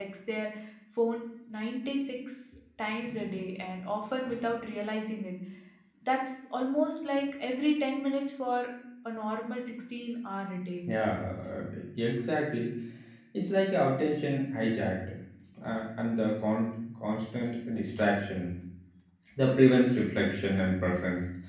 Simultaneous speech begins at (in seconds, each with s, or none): none